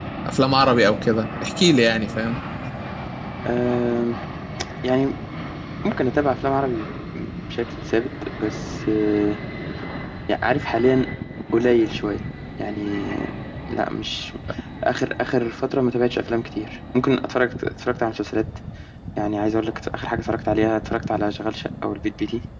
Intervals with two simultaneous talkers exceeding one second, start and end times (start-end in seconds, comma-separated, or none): none